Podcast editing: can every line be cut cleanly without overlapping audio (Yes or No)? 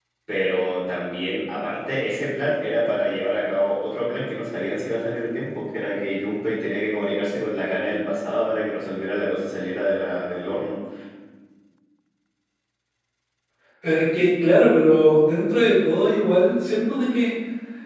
Yes